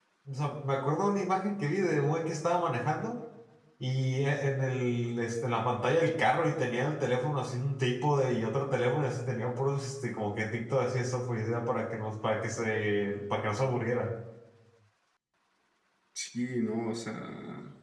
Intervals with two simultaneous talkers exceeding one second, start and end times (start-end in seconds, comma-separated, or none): none